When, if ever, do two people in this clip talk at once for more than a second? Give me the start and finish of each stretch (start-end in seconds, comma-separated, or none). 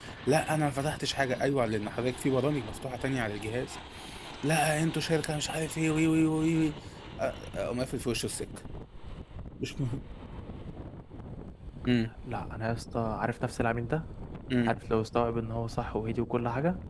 none